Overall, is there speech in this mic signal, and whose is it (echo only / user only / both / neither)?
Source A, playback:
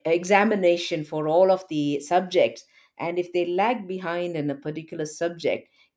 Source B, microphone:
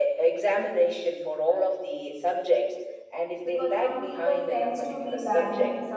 both